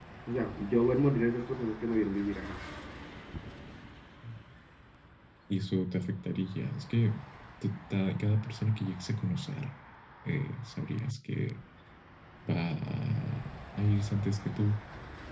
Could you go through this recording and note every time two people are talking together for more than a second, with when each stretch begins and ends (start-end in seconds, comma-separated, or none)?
none